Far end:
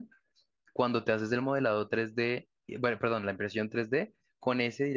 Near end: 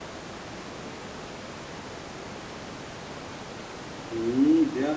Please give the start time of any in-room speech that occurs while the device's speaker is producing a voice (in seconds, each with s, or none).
4.1 s